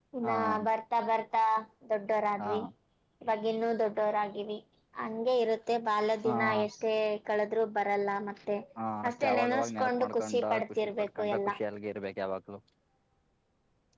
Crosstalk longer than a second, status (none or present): present